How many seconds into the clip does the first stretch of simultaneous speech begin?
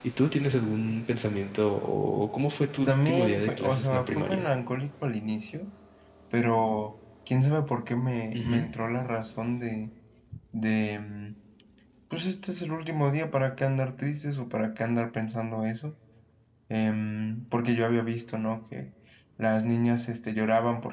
3 s

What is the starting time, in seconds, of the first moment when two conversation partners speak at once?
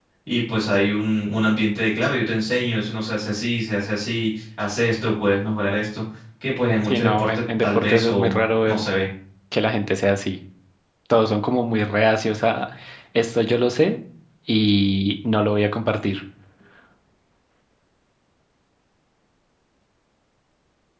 7 s

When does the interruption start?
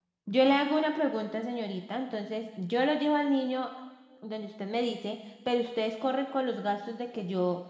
none

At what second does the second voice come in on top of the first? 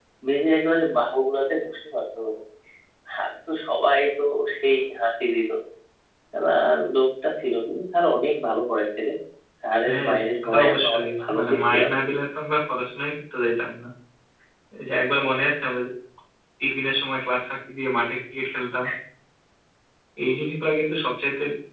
10 s

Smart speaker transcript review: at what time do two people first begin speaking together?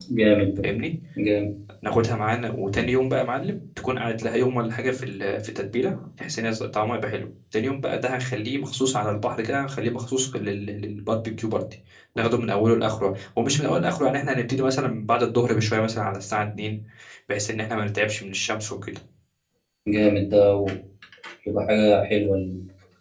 none

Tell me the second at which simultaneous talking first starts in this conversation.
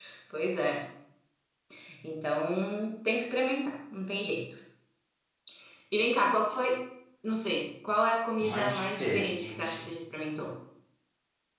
8 s

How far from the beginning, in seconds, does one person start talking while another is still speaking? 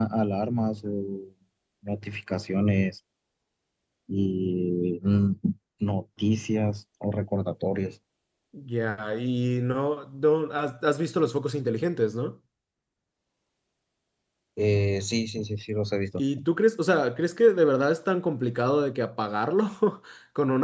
none

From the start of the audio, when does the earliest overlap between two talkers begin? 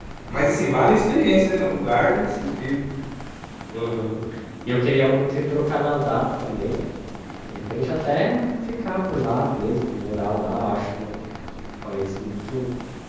none

